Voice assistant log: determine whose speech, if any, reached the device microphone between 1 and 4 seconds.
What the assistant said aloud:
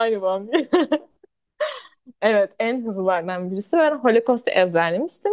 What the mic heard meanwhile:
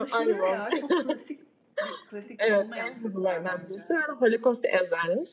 both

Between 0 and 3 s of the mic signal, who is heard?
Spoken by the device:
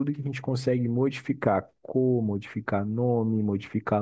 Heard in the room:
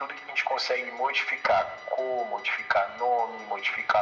echo only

